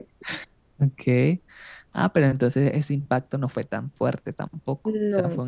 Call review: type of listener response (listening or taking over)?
listening